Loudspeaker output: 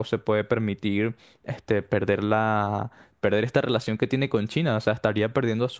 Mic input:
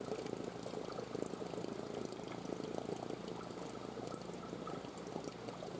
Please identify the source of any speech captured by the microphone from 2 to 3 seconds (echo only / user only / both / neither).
neither